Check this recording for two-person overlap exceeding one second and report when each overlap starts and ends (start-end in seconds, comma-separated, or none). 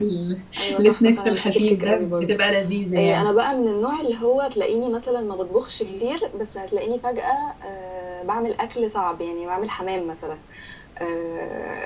0.8-2.4